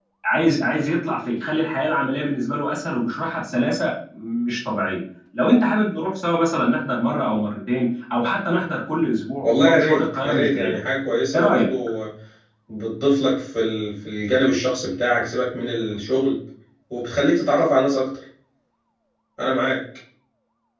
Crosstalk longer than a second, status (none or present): present